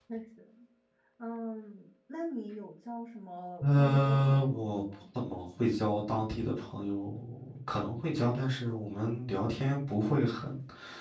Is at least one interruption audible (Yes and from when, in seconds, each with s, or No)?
Yes, from 3.6 s